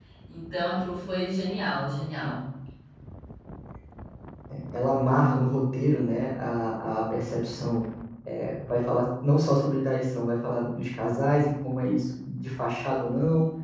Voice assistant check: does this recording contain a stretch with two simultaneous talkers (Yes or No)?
No